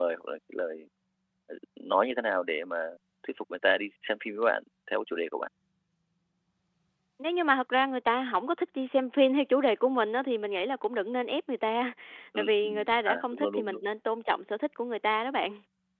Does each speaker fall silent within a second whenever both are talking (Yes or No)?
No